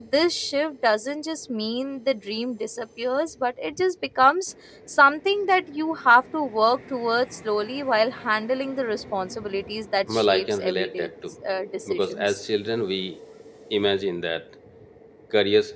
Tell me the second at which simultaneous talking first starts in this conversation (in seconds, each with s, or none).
10.1 s